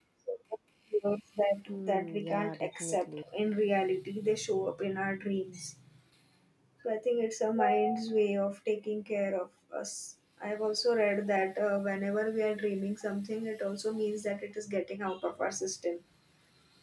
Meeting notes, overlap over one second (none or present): present